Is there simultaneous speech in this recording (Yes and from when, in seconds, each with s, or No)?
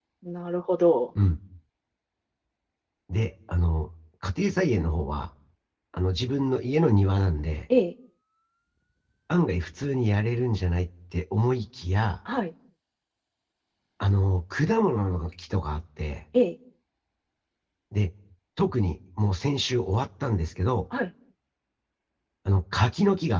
No